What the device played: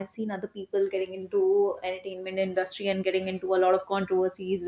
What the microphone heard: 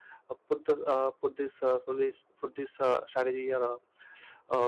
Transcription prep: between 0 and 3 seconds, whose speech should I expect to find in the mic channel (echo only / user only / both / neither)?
user only